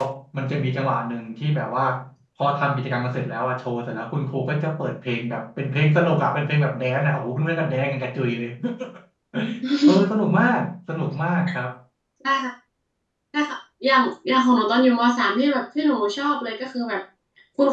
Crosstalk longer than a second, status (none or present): none